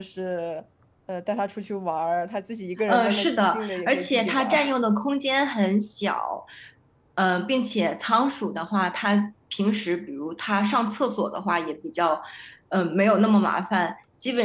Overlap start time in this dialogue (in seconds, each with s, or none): 2.9 s